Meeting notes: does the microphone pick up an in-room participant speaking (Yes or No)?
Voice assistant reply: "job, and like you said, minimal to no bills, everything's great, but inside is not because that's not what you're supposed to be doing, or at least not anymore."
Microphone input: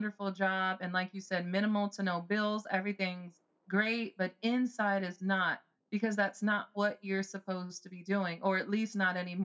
No